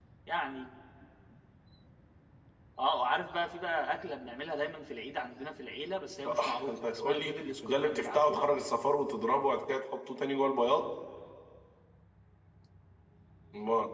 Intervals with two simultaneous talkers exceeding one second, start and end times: 6.2-8.4

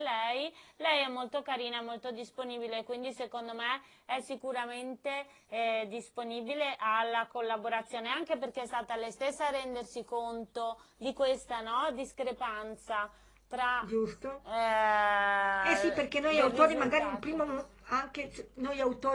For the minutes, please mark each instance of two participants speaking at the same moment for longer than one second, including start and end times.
15.6-17.4

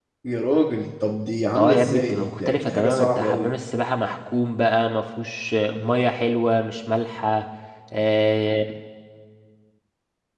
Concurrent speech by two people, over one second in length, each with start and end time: 1.6-3.5

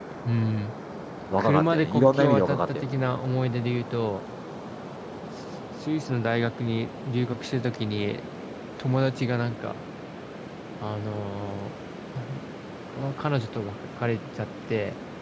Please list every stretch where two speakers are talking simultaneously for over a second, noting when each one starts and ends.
1.4-2.9

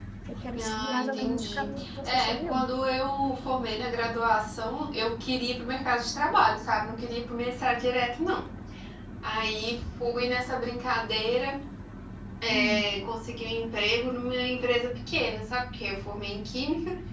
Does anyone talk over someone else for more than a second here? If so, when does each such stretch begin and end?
0.6-2.7

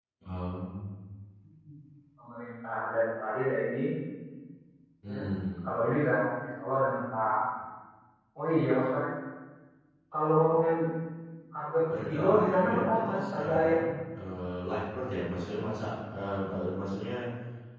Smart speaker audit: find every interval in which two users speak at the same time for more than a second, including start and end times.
12.0-13.8

